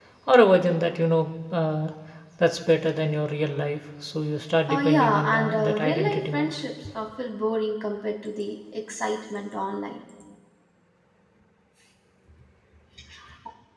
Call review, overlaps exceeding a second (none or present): present